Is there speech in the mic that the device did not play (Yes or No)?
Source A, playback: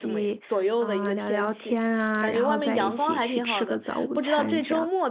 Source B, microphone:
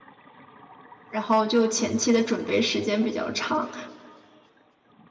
Yes